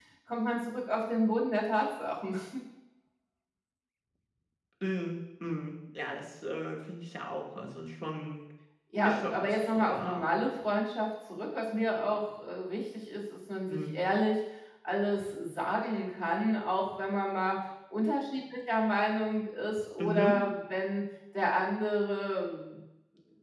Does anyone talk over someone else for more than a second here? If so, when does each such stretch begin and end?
9.0-10.2

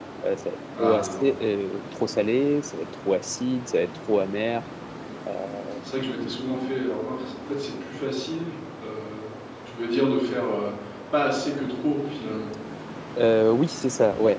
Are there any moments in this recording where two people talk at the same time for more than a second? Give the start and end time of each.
none

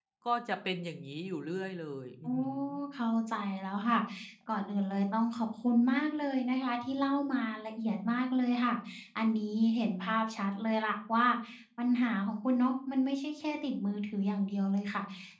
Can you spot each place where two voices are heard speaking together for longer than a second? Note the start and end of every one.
none

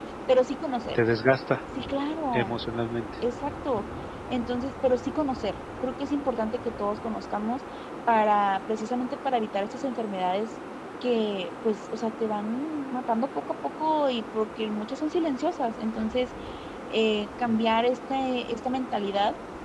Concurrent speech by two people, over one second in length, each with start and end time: none

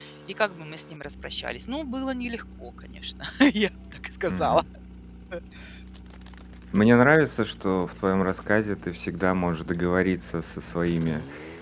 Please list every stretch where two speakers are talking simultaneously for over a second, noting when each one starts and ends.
none

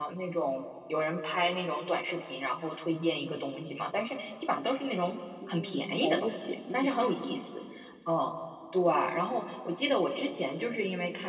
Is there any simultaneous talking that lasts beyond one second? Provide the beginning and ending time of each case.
5.5-6.9

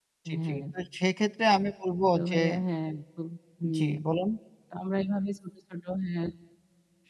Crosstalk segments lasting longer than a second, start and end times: none

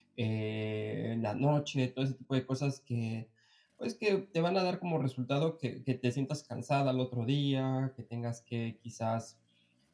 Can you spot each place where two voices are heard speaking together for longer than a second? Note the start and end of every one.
none

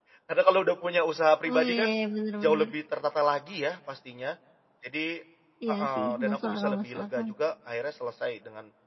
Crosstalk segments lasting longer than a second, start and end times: 5.7-7.2

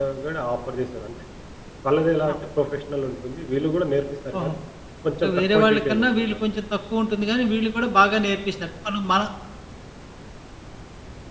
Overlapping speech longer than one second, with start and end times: 5.2-6.4

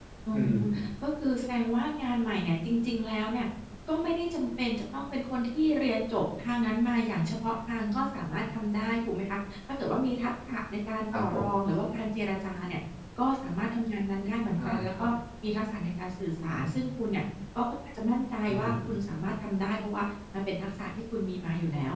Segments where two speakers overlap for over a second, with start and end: none

